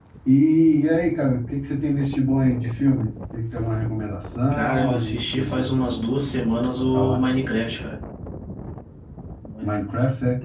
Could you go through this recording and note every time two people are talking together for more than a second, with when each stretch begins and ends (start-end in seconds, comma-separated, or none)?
4.5-5.7